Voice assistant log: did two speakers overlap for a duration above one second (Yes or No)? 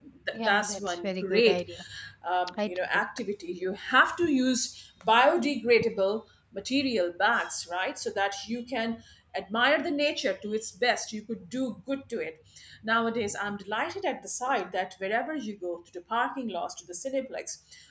Yes